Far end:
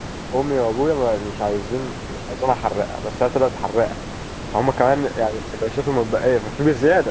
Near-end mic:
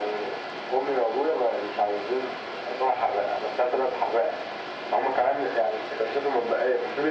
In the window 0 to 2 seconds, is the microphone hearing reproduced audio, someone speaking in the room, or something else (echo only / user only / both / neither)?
echo only